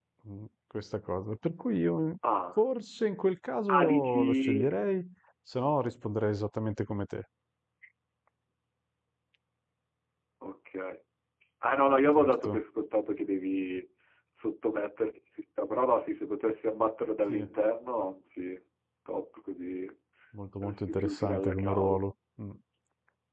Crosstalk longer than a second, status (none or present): present